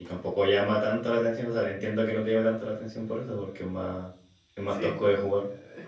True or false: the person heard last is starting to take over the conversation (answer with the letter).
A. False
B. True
B